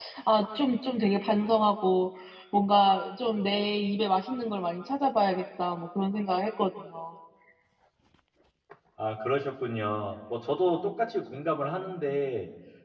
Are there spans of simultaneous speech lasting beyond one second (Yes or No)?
No